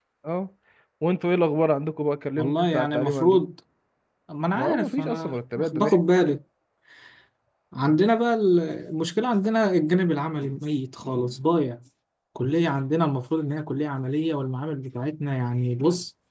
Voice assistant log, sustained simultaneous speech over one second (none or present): present